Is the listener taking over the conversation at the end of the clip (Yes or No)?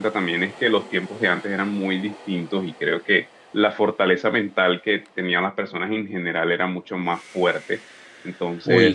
No